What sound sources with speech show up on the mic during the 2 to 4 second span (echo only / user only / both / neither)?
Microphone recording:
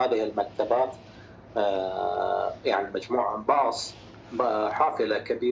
echo only